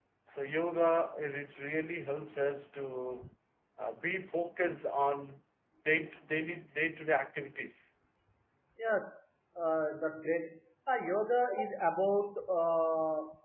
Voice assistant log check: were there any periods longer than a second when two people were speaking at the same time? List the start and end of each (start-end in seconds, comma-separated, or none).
none